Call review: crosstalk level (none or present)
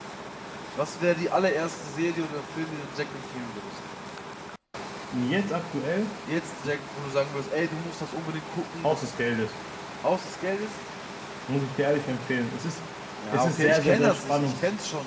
present